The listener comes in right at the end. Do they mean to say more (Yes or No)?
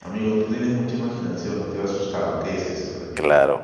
Yes